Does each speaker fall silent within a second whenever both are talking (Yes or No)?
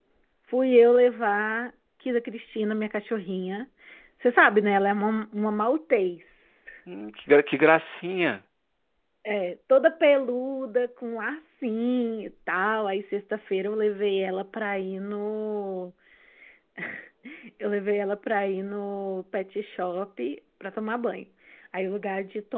Yes